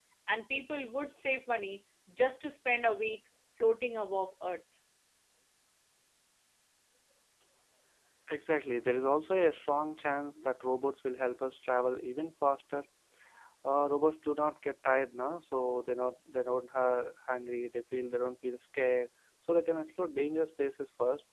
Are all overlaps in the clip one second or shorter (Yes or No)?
Yes